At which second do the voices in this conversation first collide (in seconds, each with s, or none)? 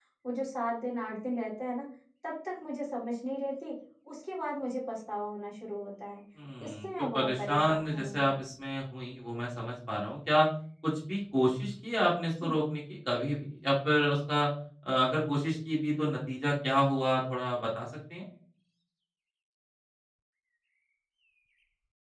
6.6 s